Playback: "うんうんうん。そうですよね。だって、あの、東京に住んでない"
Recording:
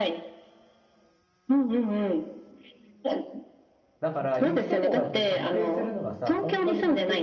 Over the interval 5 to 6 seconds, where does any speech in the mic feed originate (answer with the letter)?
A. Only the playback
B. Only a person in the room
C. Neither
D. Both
D